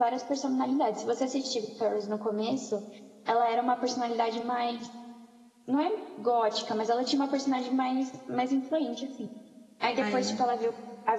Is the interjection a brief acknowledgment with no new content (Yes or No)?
Yes